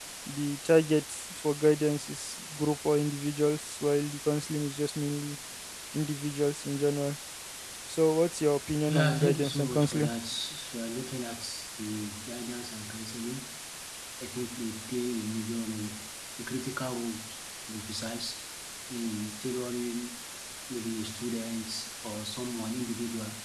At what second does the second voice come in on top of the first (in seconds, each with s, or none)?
8.9 s